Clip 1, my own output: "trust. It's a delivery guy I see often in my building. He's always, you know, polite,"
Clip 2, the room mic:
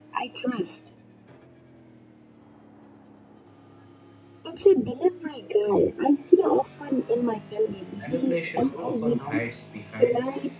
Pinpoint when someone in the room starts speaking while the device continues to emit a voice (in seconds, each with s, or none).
7.9 s